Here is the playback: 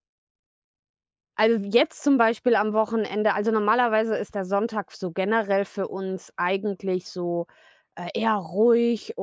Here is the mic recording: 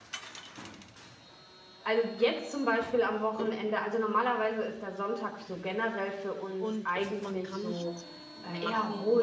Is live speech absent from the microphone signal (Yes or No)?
No